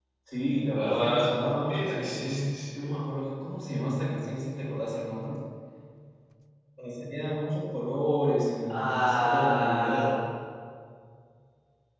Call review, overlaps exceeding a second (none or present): present